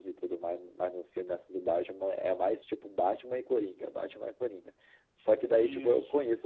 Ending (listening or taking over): listening